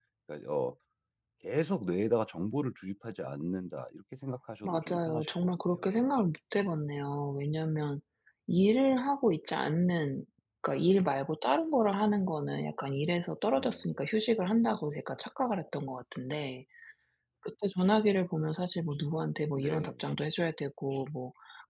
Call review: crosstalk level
present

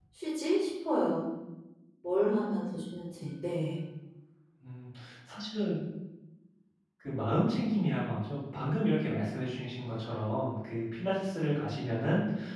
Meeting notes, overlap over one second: none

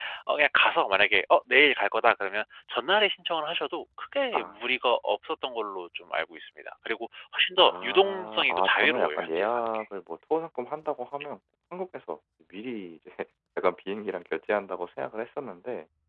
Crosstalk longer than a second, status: present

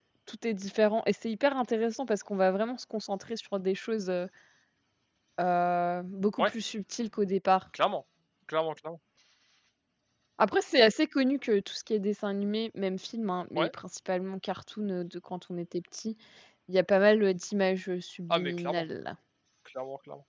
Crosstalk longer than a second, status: none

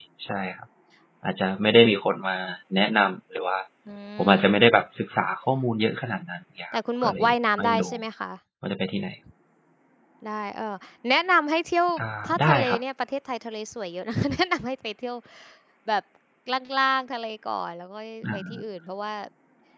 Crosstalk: present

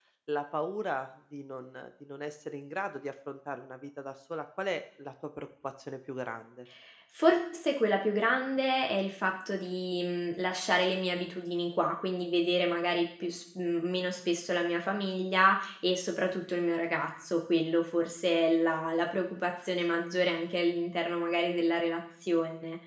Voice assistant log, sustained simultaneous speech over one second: none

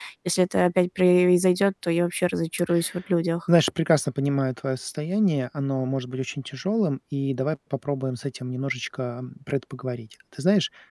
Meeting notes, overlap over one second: none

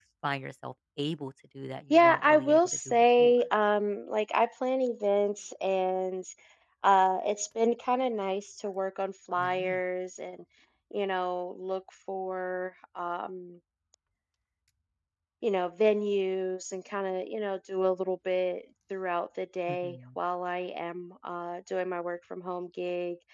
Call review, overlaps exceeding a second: present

